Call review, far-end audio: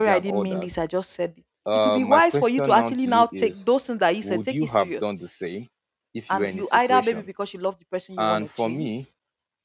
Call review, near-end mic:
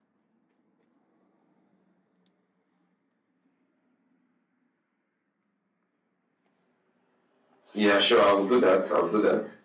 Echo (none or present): none